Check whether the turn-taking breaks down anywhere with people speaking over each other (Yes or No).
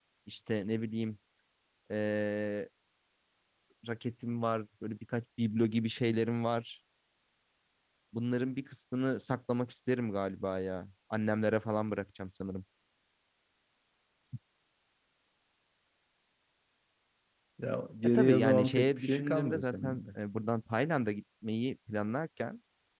Yes